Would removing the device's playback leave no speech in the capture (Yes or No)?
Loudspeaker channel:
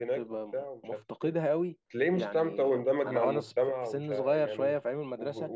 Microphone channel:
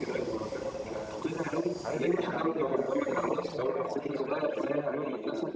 No